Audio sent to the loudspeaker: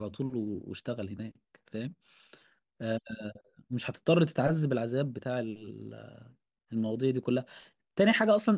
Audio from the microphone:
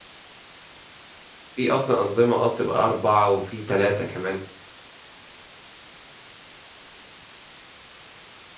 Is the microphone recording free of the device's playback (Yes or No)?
Yes